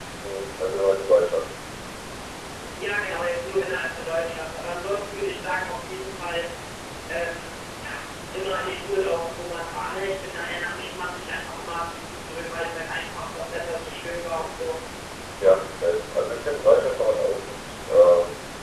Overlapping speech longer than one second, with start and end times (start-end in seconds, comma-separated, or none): none